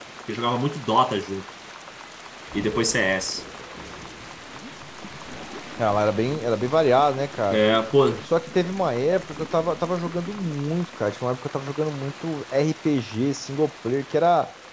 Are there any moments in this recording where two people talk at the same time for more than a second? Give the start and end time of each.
none

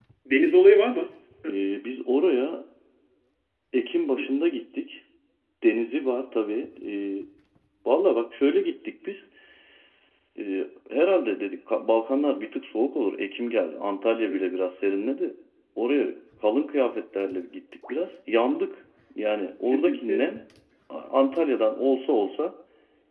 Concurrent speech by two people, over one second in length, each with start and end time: none

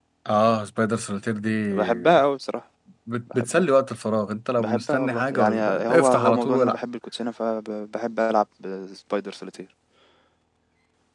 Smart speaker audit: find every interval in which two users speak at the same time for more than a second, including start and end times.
4.6-6.8

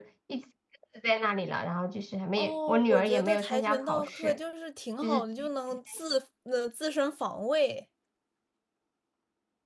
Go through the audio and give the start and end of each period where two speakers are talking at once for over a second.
2.4-4.4

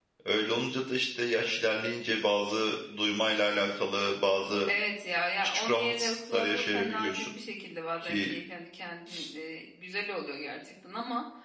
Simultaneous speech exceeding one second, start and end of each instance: 5.4-7.3

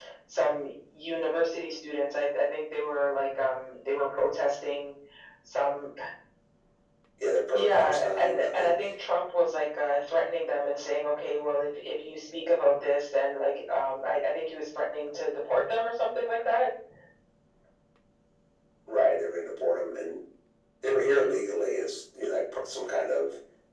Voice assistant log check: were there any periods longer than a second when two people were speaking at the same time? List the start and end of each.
7.5-8.8

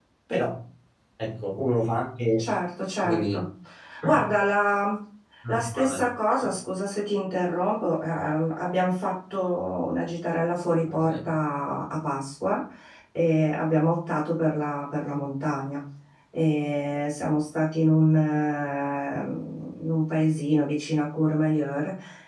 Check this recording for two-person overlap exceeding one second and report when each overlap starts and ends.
none

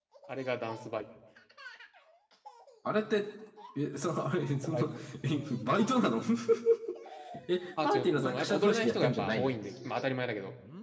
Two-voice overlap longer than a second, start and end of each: 7.8-9.5

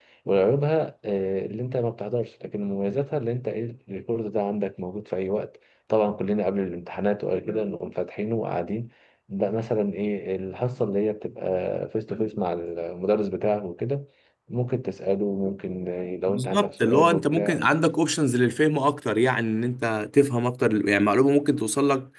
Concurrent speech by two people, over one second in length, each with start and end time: 16.3-17.7

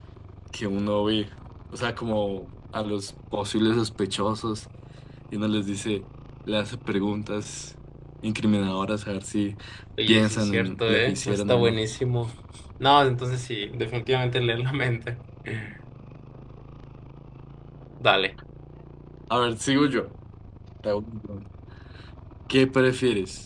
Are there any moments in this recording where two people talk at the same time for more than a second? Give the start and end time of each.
10.1-11.8

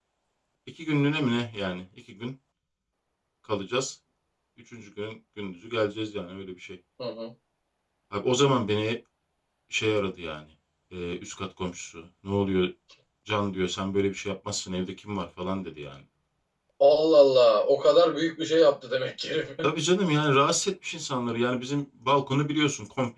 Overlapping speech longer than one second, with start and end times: none

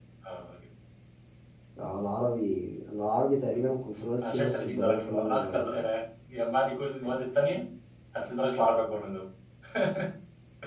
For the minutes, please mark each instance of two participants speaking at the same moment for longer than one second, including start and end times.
4.3-5.6

